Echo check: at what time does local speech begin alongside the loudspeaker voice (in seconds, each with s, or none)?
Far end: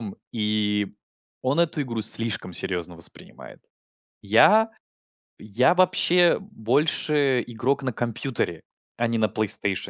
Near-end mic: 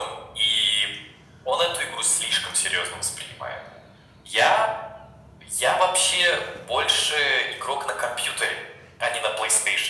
none